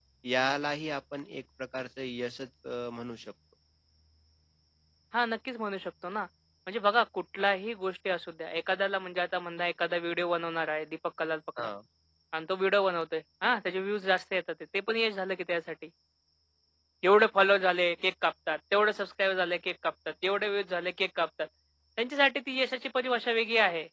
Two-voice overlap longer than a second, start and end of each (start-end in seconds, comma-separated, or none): none